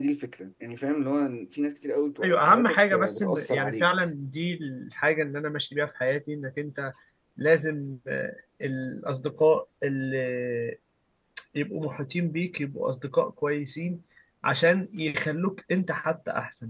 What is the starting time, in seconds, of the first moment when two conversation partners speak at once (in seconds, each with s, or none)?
2.2 s